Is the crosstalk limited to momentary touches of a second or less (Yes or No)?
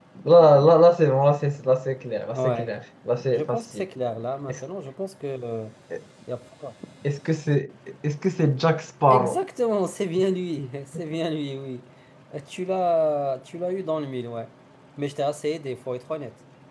Yes